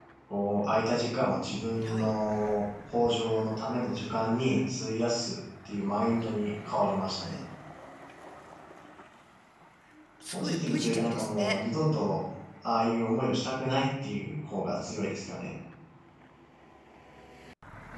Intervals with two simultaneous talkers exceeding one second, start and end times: 10.3-11.6

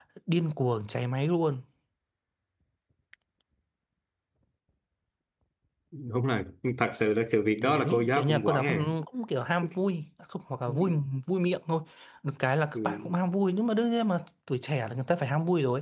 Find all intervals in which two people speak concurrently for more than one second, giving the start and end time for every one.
7.6-8.9

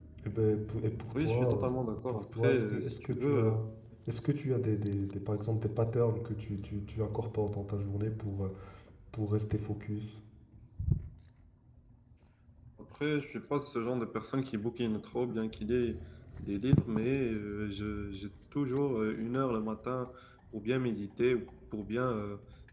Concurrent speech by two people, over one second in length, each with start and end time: 1.2-3.6

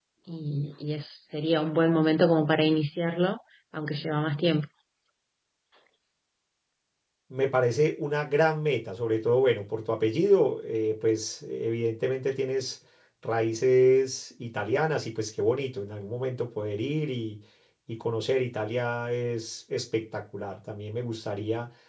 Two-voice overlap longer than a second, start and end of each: none

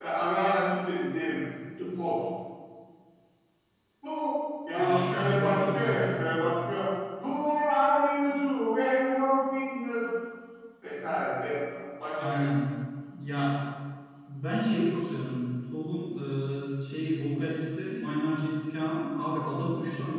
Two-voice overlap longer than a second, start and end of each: 4.8-6.5

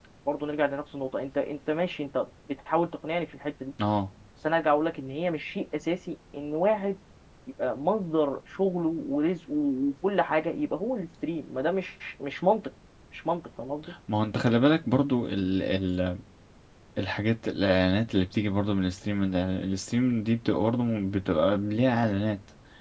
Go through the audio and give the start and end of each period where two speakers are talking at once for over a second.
none

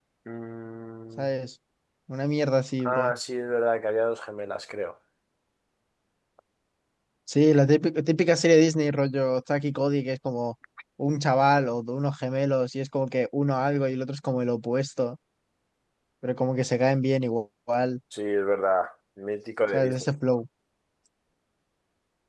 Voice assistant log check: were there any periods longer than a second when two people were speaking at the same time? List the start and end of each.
none

